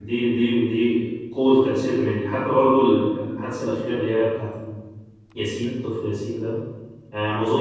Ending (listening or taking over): listening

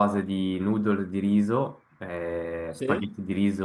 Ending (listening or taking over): listening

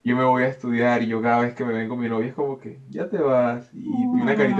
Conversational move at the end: listening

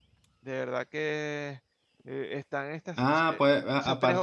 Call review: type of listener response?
taking over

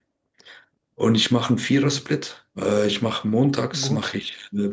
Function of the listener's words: listening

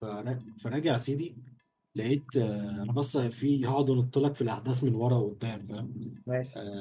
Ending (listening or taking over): listening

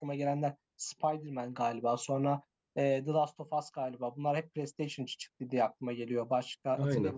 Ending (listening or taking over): listening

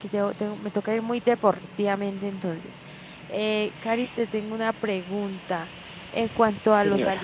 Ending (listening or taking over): listening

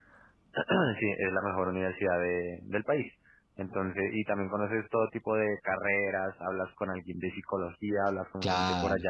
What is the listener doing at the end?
listening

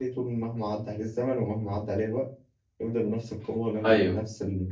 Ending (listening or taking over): listening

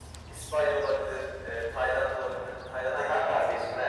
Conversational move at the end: taking over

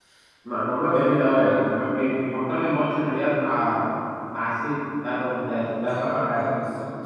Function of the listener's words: taking over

